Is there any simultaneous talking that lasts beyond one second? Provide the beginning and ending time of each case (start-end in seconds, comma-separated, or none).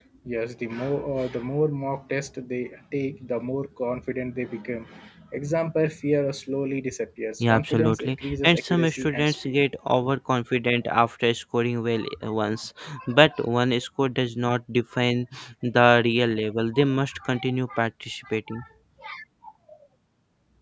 7.4-9.6